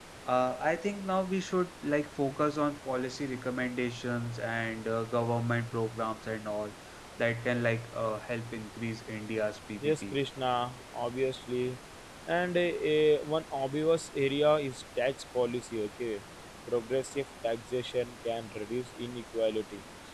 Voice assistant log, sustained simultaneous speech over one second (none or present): none